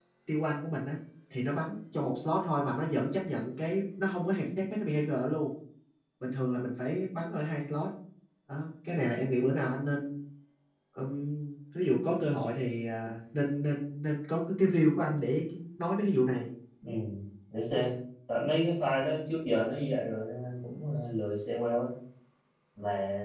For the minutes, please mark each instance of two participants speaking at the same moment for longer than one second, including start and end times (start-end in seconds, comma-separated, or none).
none